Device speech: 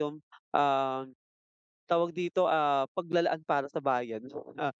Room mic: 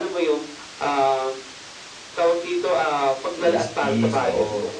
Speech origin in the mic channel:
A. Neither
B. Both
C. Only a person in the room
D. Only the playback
B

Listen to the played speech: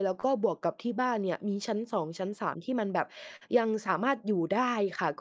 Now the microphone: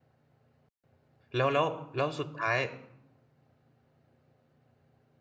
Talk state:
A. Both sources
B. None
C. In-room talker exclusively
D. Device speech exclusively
C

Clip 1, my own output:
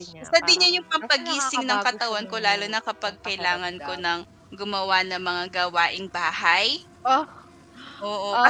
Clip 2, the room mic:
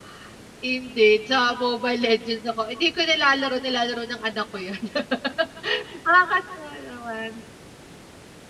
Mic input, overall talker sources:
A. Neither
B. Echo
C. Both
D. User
D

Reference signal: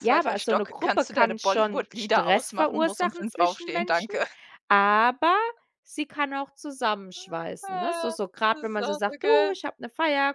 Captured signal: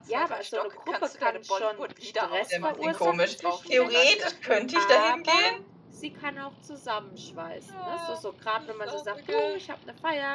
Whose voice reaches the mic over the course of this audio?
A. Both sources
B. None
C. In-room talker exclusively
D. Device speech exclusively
A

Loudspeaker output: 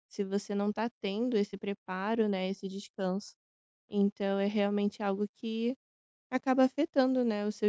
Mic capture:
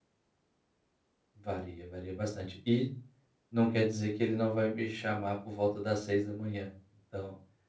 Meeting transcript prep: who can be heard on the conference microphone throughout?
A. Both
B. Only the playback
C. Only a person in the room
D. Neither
C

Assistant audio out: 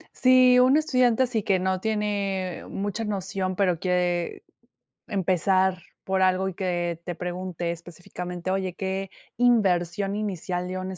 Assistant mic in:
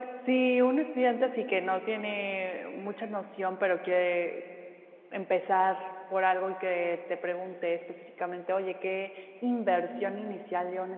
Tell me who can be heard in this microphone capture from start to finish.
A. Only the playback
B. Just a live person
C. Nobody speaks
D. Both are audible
A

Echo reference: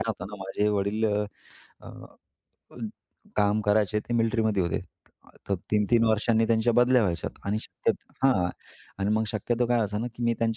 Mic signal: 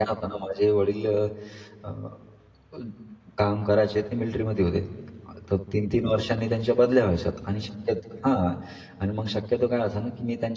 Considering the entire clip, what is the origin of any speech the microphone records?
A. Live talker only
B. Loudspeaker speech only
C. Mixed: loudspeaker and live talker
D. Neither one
B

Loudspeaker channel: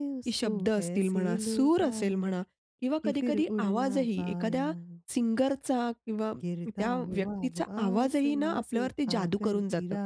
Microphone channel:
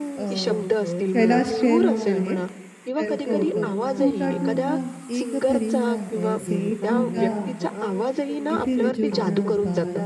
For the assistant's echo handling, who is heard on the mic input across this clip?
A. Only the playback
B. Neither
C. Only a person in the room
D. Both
D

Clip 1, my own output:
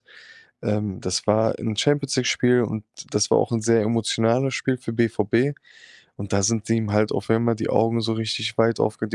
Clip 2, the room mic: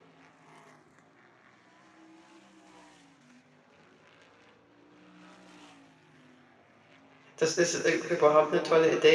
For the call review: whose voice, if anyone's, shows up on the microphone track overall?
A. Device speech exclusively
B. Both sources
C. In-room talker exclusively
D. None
C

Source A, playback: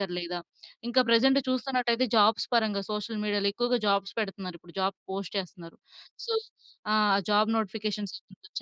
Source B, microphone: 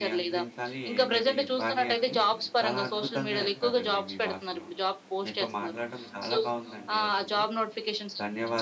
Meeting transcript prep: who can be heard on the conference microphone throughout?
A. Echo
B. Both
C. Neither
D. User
B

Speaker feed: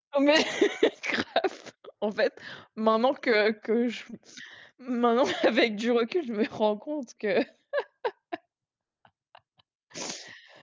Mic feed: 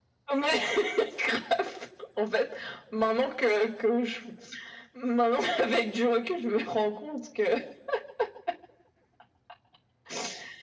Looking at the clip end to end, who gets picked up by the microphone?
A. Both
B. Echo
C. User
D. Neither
B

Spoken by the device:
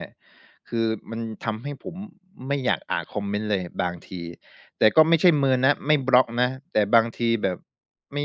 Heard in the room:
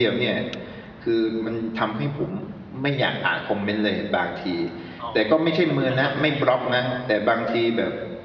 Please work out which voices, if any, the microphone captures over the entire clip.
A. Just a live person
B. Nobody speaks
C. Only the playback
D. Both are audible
D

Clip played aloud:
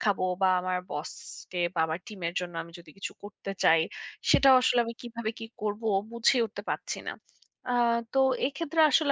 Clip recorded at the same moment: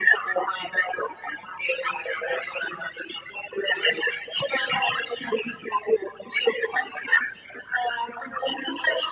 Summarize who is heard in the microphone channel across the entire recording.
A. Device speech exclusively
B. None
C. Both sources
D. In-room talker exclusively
A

